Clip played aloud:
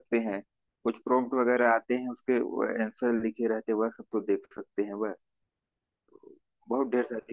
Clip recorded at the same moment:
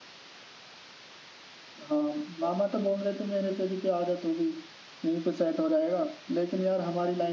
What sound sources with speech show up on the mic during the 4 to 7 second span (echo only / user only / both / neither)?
user only